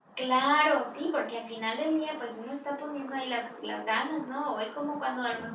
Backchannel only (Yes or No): Yes